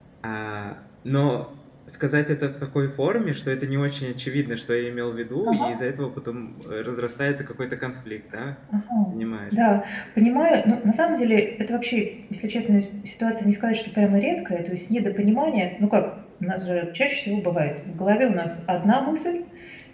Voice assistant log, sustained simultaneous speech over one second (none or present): none